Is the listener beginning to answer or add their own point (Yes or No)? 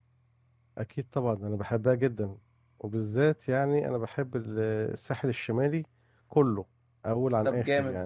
Yes